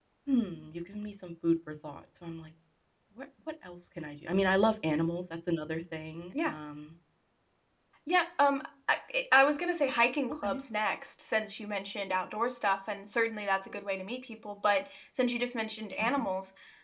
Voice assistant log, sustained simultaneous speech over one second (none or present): none